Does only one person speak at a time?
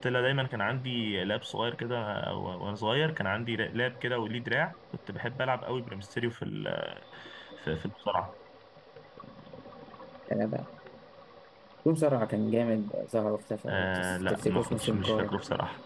No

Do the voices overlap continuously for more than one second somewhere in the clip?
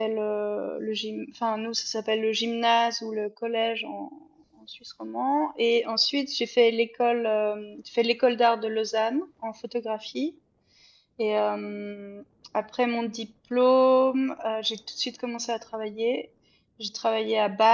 No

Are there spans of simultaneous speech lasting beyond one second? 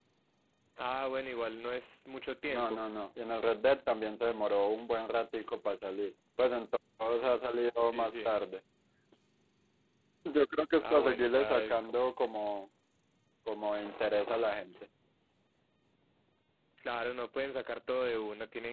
Yes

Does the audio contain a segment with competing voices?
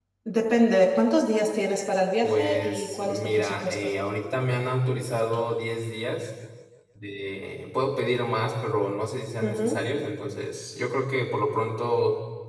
Yes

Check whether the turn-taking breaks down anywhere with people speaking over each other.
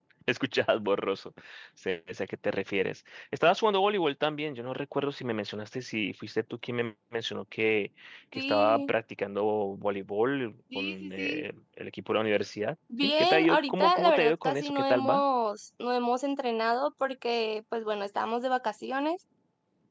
Yes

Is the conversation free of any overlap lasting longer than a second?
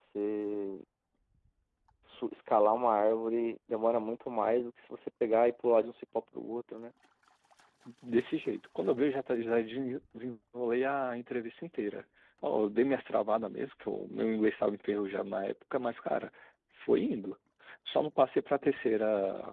Yes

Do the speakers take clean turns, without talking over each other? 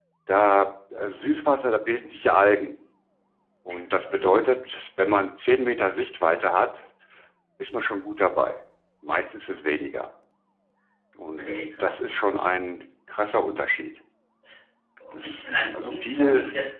No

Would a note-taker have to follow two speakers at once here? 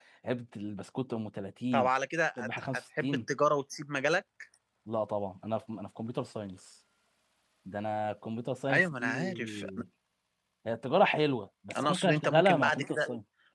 Yes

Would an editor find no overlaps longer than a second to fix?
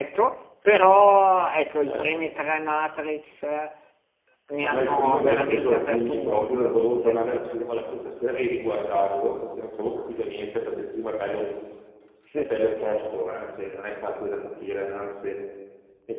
No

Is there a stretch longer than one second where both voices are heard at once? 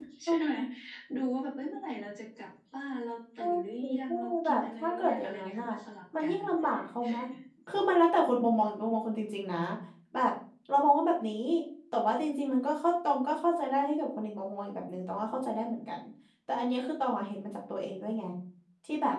Yes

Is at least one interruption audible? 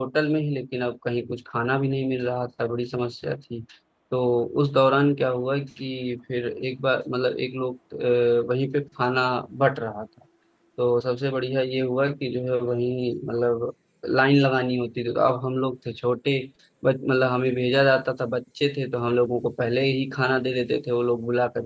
No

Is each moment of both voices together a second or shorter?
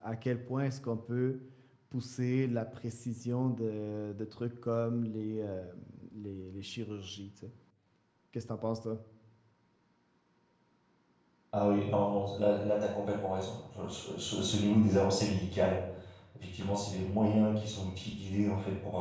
Yes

